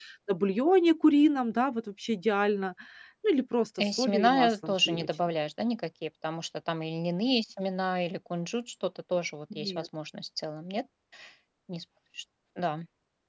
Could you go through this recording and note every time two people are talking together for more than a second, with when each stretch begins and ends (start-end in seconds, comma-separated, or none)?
3.8-5.1